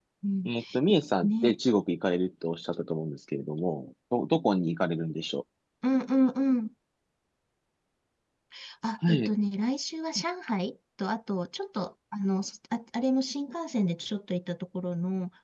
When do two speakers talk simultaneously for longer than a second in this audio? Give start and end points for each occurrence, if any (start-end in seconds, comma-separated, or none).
none